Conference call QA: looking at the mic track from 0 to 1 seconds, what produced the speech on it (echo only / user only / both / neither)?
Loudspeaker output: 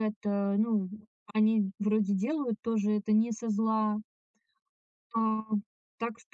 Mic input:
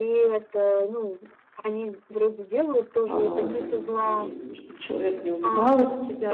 echo only